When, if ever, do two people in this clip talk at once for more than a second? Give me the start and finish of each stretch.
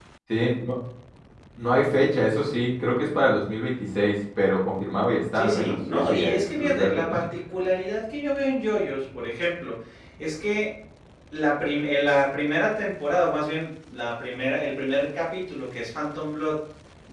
5.3-7.2

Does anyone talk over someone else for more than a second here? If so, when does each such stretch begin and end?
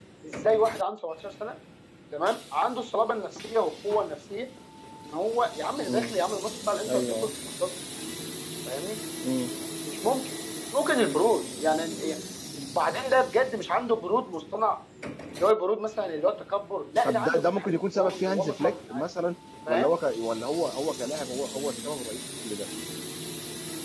17.0-19.0

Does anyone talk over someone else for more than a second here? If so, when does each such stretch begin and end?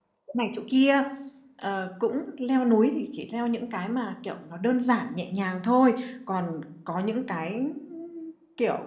none

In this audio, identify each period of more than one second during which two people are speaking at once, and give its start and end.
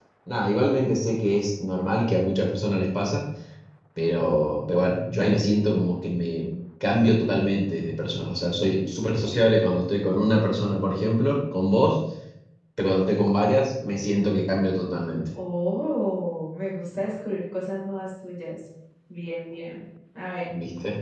none

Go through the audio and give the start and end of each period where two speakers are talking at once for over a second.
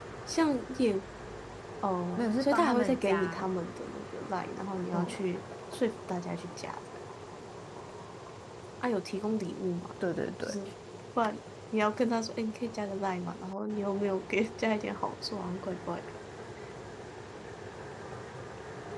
2.2-3.5

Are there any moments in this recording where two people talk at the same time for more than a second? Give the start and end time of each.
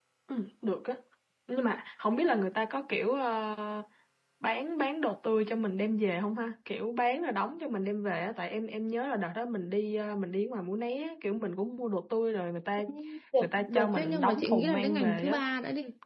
13.4-15.4

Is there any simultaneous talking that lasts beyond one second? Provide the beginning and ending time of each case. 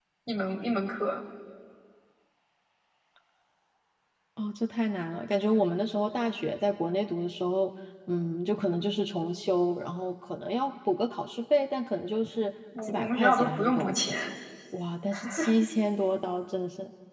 12.8-14.2

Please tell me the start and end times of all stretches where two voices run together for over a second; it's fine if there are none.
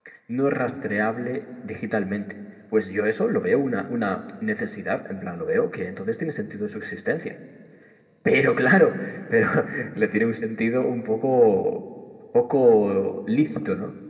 none

